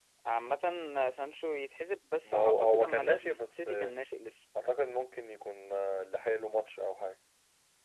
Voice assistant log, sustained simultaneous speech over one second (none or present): present